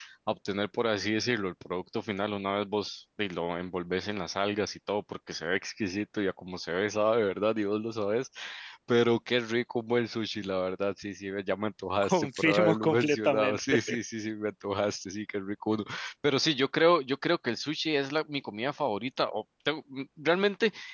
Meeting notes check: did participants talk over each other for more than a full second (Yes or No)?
Yes